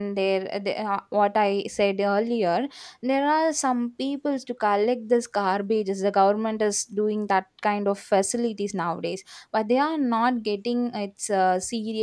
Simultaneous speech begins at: none

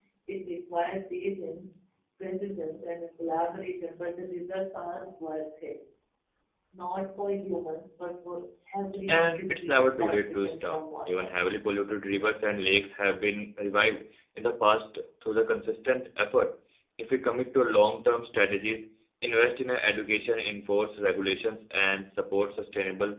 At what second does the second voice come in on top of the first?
9.1 s

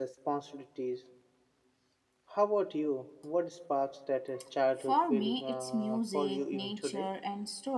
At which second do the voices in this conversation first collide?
4.8 s

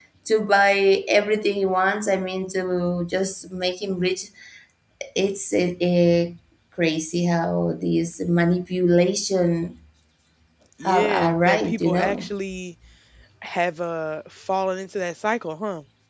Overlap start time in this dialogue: 10.8 s

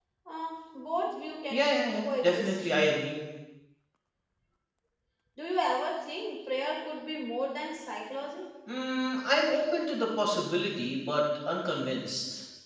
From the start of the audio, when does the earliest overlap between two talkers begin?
1.5 s

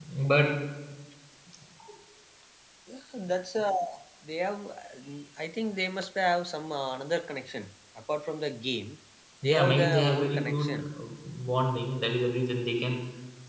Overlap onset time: 9.5 s

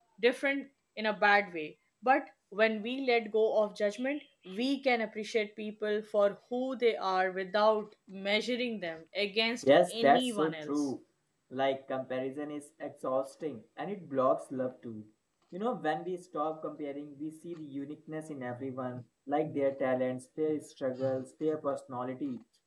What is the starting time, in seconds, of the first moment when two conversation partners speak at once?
9.6 s

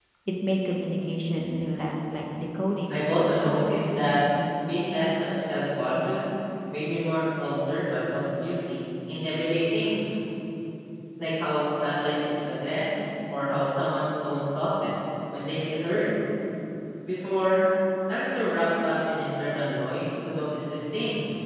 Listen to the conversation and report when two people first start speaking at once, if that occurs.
2.9 s

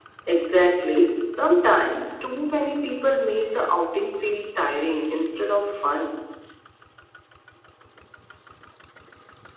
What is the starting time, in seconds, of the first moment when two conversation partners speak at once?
none

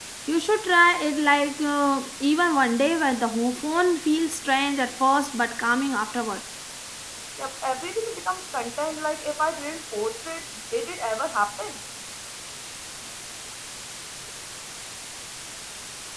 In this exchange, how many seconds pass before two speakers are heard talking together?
none

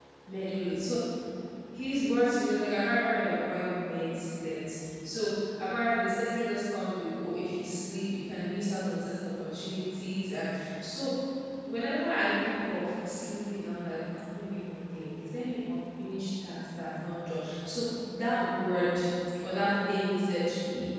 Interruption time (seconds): none

